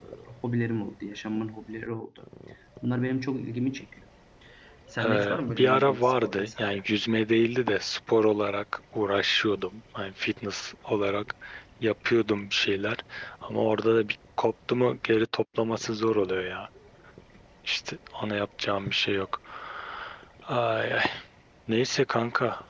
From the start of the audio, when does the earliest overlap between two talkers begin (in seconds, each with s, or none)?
5.0 s